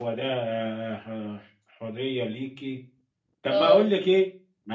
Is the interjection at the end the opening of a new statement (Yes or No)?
No